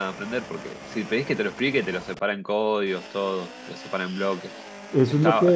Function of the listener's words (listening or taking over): taking over